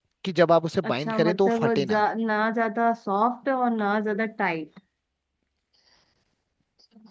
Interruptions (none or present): present